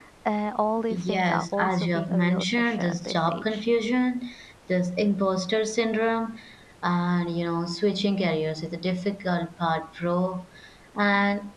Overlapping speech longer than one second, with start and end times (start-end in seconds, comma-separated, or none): 0.9-3.6